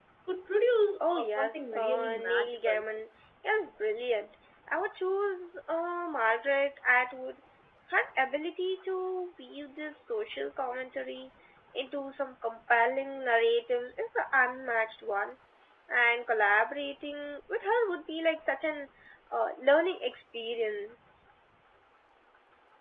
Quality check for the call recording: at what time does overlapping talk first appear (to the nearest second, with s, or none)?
1 s